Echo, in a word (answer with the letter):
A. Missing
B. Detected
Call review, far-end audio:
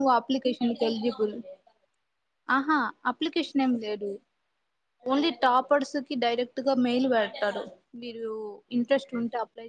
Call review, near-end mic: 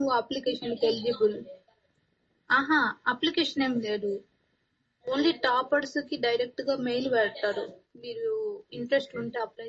B